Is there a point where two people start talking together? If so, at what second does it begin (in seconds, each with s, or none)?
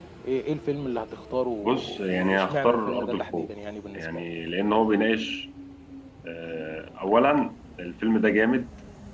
1.6 s